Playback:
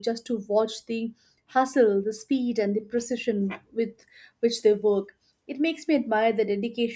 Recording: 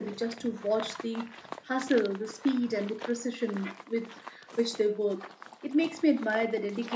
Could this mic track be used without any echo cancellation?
No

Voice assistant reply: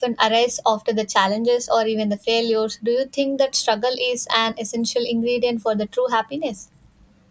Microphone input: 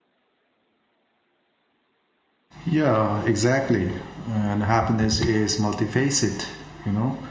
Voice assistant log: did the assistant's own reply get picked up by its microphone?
No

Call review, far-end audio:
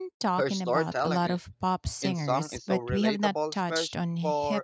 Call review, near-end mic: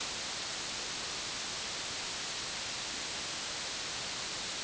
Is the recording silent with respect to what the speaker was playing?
Yes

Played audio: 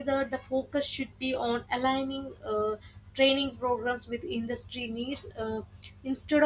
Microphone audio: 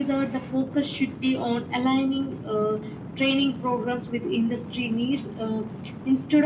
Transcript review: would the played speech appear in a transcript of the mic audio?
Yes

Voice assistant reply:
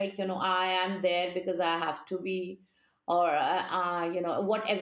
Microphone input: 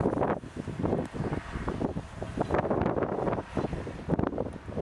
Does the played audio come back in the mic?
No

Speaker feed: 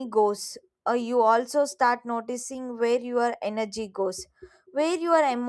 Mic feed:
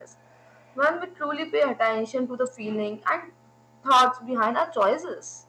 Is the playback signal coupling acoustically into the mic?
No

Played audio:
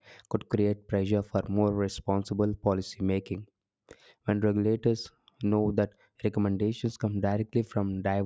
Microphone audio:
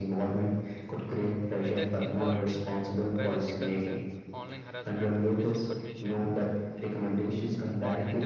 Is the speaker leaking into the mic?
Yes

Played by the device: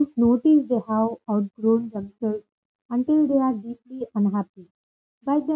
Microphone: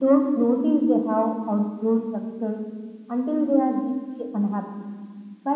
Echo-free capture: No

